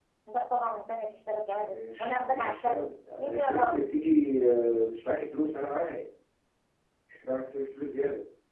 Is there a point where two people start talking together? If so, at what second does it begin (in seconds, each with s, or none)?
1.7 s